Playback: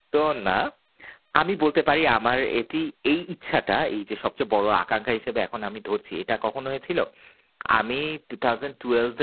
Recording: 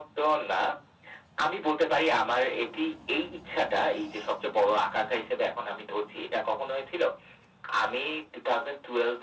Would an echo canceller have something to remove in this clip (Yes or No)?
Yes